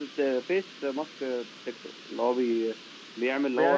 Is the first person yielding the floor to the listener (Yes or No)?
Yes